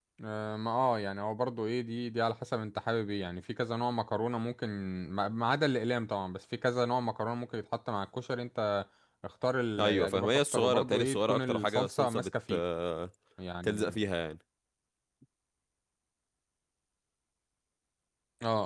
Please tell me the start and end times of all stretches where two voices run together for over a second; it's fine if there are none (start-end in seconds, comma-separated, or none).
9.8-12.6